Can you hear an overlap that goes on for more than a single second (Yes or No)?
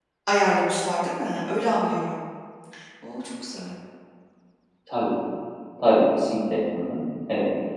No